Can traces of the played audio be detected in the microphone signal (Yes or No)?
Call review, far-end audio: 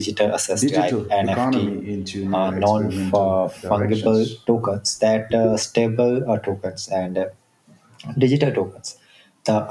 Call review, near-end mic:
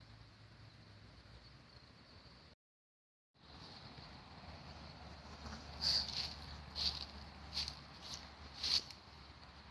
No